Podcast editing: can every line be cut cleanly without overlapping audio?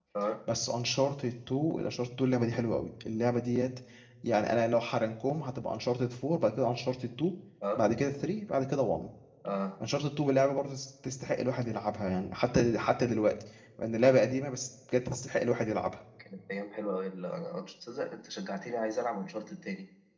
Yes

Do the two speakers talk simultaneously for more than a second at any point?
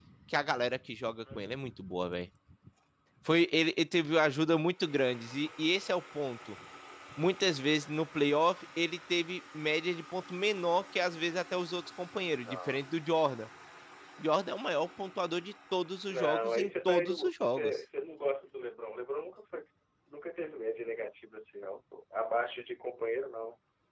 Yes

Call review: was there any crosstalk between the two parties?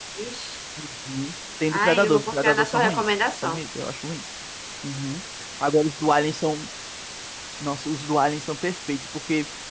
Yes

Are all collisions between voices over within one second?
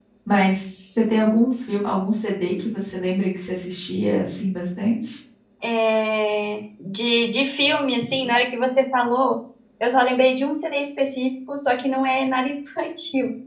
Yes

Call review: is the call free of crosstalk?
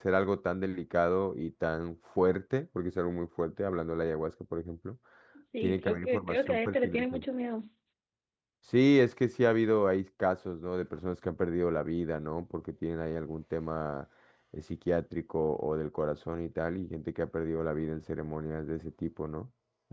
No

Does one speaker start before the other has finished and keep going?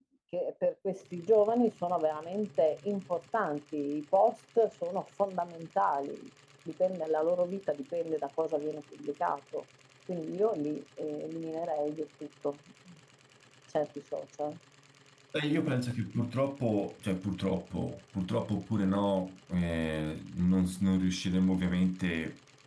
No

